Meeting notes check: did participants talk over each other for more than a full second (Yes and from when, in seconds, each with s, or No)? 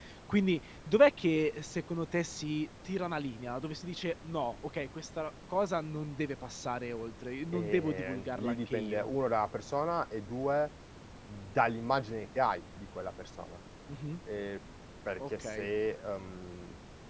Yes, from 7.5 s